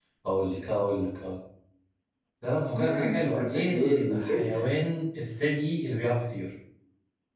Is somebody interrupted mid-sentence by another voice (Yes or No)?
Yes